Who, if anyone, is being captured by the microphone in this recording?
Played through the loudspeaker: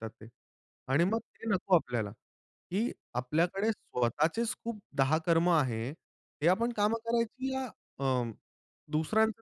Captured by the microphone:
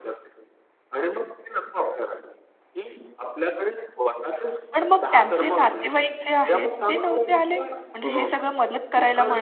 both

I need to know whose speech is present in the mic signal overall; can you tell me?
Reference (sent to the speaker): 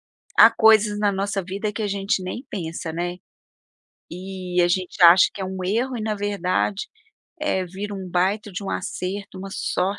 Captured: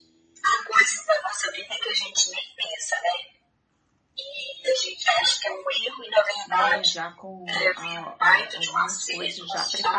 both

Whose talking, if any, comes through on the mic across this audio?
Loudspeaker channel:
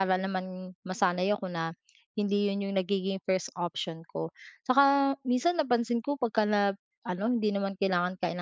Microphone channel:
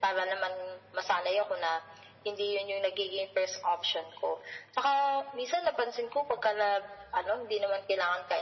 echo only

